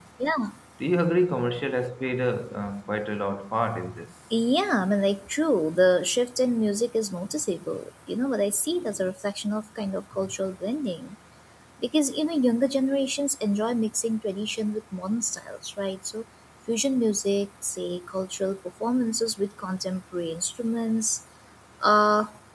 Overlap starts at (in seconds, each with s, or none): none